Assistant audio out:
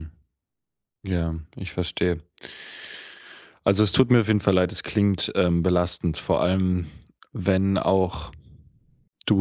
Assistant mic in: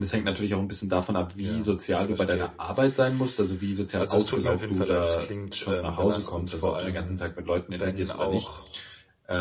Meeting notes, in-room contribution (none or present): present